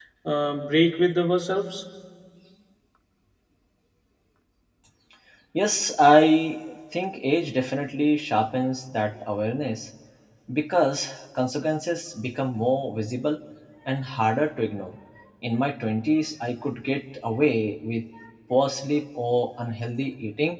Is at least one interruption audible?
No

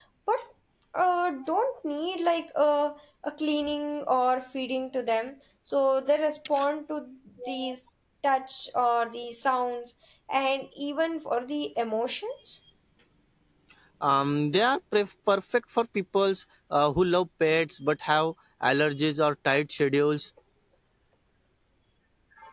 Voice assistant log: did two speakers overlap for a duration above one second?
No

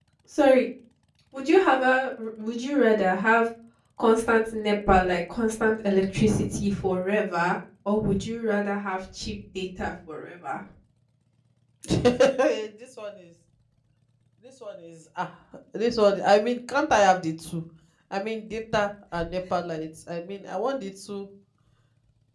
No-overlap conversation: Yes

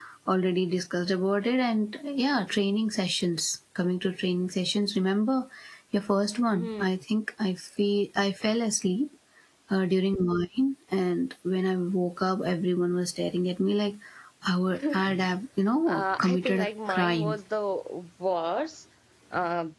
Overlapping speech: Yes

